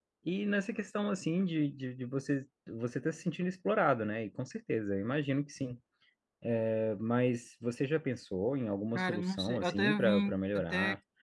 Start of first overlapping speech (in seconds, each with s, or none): 9.0 s